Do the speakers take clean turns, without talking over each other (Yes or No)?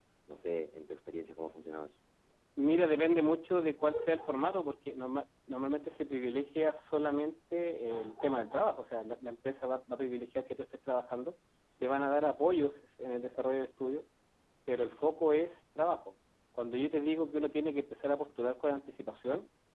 Yes